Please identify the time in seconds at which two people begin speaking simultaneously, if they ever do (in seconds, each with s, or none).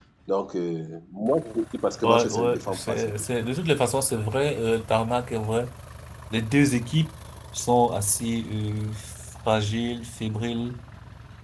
2.0 s